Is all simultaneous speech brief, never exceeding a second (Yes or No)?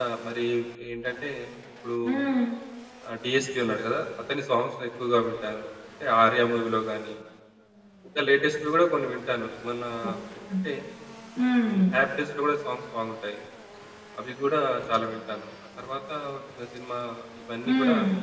Yes